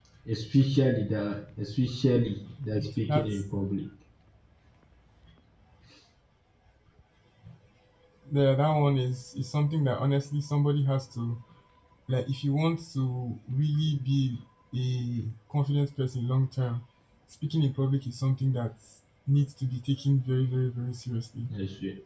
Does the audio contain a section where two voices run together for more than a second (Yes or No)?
No